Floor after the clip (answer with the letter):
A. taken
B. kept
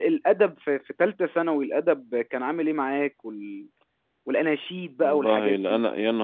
A